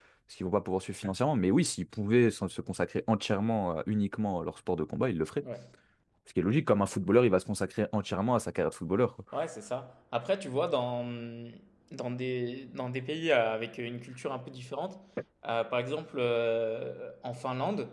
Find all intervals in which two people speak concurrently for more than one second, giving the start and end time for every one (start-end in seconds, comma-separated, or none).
none